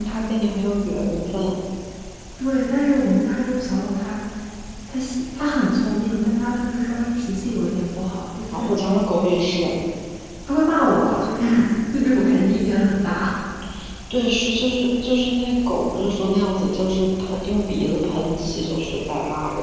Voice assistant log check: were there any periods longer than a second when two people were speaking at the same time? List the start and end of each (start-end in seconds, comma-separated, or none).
none